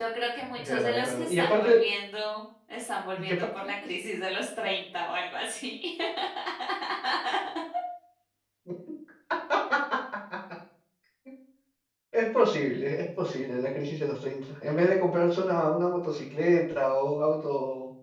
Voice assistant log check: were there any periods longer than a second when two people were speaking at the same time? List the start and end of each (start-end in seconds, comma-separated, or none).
0.6-1.8